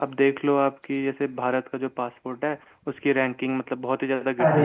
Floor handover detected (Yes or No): Yes